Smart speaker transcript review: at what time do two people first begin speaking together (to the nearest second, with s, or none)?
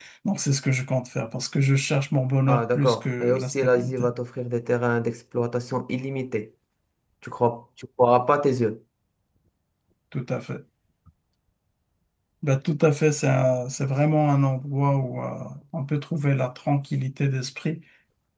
2 s